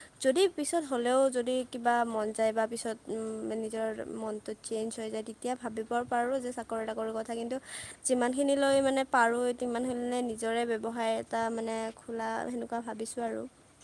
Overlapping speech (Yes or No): No